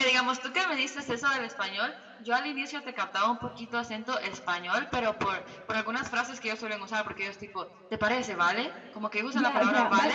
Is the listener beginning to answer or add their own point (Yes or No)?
Yes